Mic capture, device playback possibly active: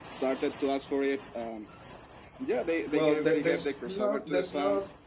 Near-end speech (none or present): present